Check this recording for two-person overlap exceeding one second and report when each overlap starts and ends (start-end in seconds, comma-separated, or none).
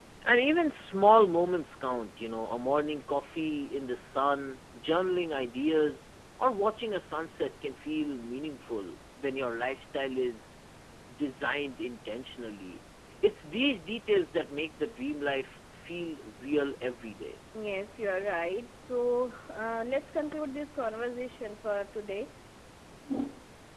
none